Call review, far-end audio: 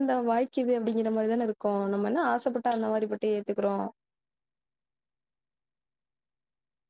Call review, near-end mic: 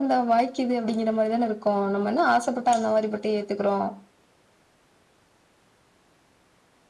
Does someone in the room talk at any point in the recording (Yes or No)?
No